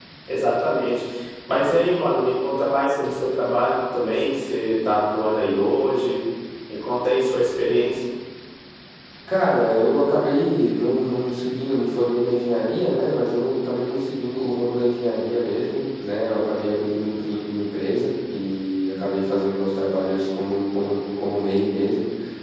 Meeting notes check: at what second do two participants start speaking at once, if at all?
none

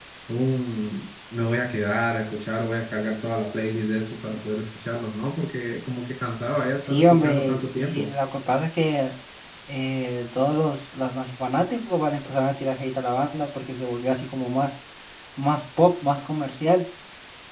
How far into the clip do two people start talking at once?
7 s

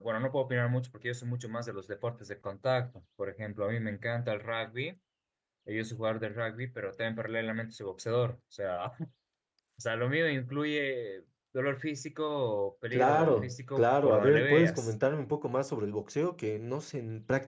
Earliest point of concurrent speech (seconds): 13 s

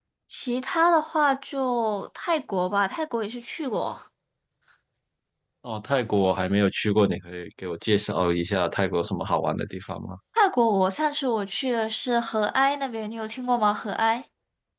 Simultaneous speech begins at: none

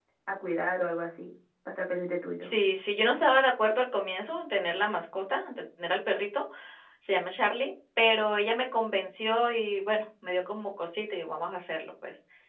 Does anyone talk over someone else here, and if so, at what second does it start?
none

